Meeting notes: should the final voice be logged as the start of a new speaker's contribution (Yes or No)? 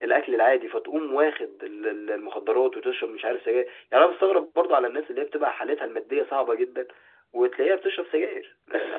Yes